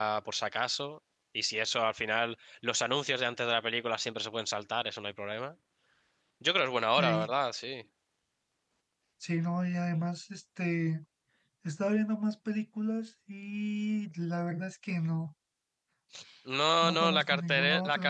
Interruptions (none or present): present